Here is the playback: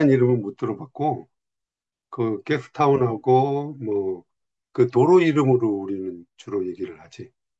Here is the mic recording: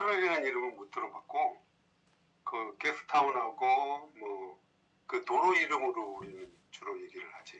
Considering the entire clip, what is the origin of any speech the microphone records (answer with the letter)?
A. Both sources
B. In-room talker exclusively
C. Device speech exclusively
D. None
C